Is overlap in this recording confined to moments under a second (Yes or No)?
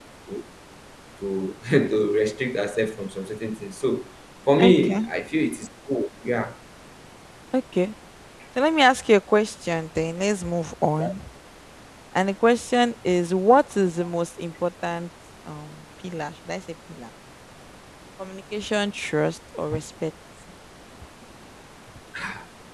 Yes